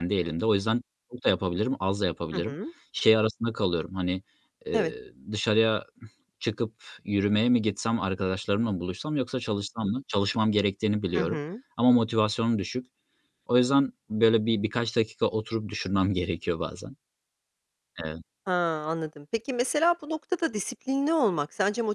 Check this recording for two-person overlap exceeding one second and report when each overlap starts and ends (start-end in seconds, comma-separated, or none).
none